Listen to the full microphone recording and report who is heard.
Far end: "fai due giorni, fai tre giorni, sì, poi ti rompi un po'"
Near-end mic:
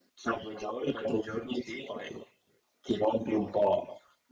echo only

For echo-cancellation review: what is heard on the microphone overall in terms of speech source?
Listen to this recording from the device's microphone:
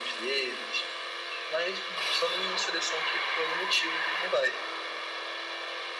echo only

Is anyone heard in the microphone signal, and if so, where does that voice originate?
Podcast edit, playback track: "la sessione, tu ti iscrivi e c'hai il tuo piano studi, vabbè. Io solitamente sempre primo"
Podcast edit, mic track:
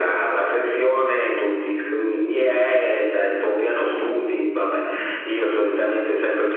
echo only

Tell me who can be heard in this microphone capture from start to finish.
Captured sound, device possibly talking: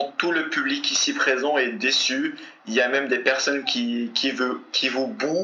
echo only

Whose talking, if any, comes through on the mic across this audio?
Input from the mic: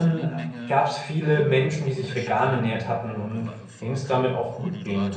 both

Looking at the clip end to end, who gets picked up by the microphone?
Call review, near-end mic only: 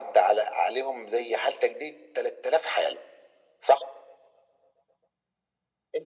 echo only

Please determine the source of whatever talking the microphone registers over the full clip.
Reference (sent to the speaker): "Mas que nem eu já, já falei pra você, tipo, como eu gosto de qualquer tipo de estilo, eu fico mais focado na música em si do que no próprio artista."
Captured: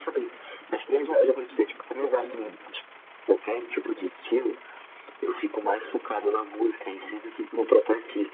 echo only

